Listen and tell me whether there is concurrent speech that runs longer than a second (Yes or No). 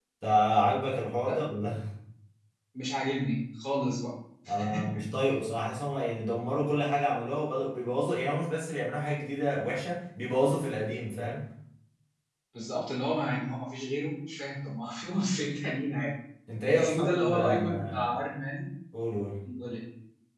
Yes